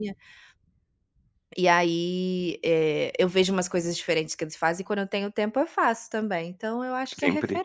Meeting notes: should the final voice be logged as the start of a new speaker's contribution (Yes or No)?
Yes